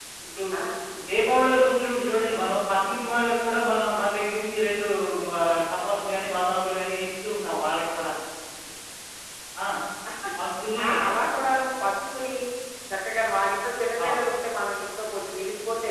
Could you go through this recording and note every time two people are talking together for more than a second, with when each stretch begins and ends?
none

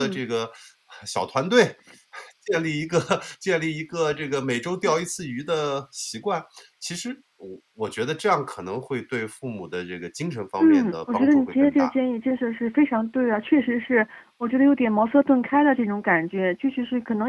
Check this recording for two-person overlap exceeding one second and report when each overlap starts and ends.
10.6-11.9

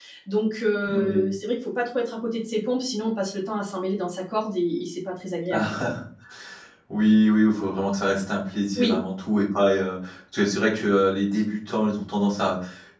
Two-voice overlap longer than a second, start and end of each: none

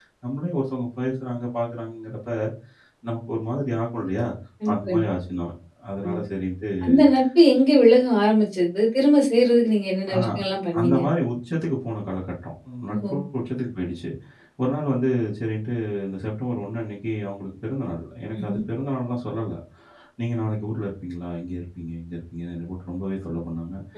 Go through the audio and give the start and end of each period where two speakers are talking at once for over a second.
none

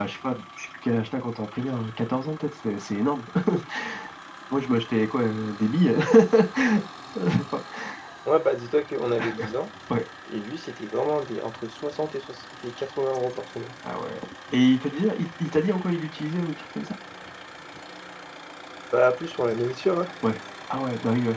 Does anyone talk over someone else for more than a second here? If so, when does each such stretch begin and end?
none

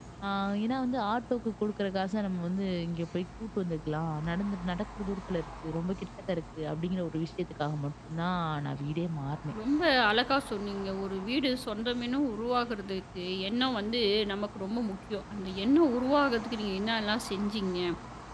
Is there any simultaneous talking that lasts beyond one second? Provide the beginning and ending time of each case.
none

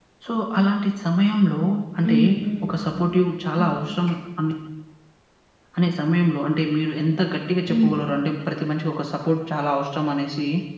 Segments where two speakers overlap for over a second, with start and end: none

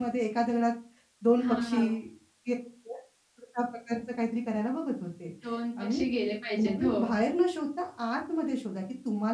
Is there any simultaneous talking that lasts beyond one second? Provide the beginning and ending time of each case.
none

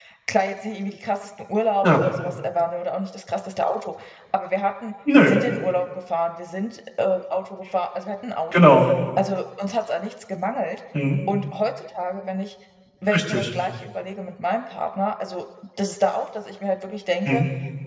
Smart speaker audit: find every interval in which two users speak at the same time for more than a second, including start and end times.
none

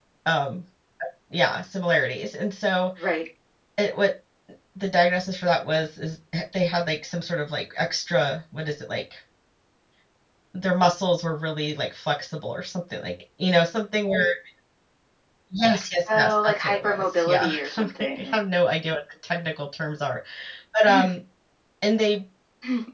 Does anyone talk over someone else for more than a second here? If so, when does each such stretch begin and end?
16.1-18.4

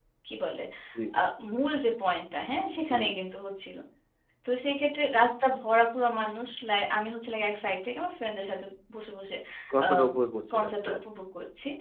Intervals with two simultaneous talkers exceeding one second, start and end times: none

